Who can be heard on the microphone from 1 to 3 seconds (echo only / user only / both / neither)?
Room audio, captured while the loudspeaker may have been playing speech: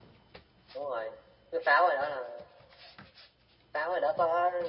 echo only